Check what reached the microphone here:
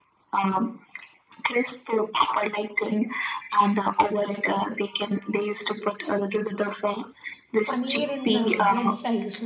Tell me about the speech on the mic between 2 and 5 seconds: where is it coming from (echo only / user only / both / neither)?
echo only